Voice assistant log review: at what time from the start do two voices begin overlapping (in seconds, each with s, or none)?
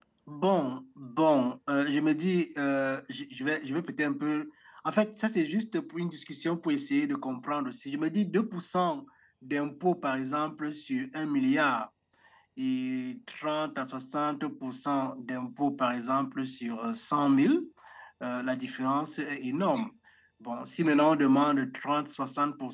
none